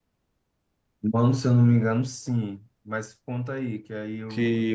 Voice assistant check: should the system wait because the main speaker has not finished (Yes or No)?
No